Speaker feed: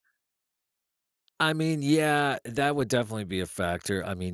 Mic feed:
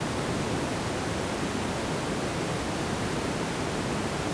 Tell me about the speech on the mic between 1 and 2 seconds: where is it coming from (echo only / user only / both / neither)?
neither